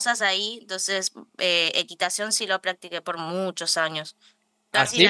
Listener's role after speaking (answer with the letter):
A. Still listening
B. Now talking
B